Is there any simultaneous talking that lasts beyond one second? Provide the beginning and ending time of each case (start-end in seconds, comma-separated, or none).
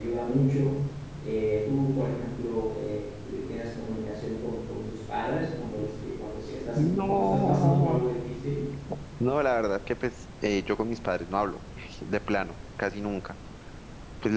6.8-8.0